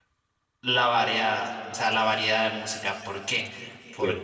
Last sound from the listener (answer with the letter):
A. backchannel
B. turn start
A